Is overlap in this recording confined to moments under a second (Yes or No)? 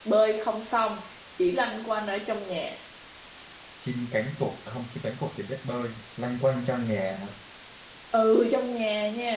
Yes